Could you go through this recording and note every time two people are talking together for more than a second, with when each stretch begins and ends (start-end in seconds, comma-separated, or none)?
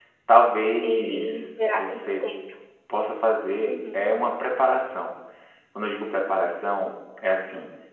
0.8-2.2